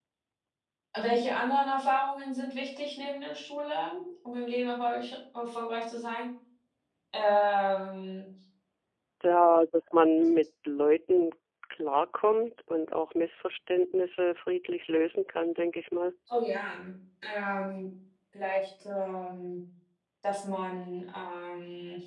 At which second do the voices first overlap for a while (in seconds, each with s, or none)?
none